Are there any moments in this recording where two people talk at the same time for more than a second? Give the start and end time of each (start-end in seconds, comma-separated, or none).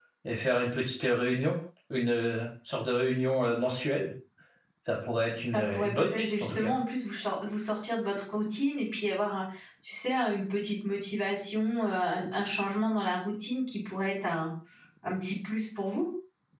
5.5-6.8